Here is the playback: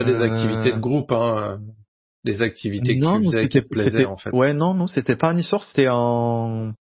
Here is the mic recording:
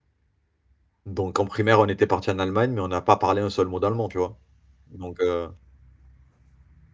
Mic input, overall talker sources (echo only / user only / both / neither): user only